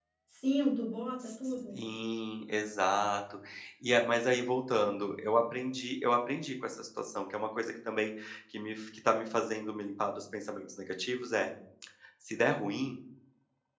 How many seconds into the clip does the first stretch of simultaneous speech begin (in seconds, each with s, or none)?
none